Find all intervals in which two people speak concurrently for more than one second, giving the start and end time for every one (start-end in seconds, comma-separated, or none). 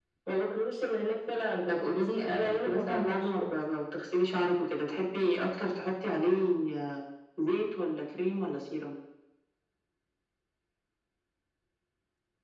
1.7-3.5